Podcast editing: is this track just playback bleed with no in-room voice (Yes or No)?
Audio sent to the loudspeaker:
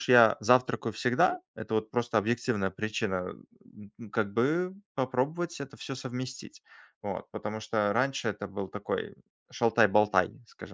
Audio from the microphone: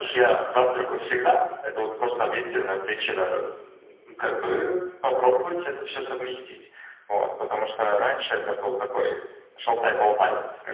Yes